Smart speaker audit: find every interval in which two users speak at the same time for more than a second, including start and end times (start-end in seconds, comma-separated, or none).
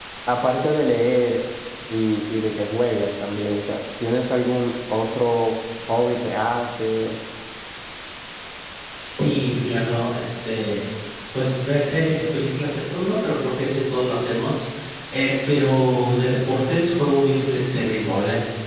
none